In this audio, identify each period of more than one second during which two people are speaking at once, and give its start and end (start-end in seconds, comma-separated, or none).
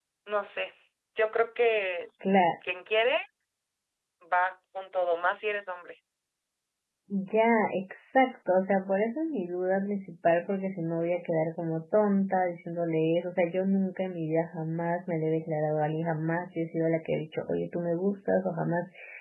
none